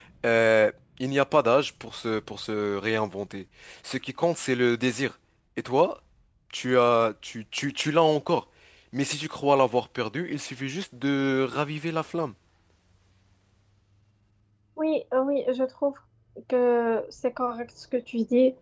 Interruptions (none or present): none